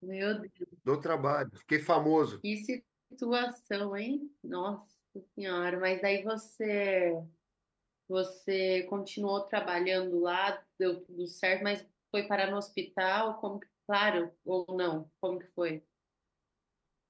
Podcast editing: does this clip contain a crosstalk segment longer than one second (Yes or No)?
No